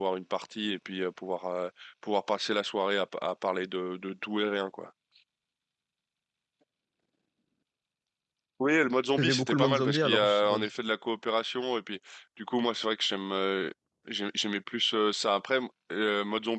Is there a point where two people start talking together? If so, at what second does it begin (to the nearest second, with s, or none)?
9 s